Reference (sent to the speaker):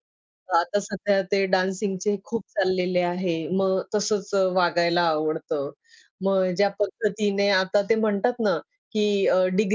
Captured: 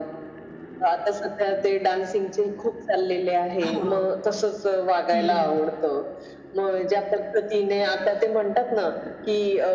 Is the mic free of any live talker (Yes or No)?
No